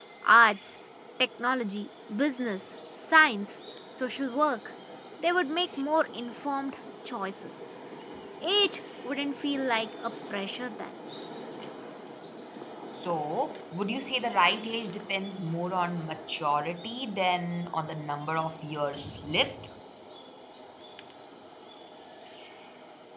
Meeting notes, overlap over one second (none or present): none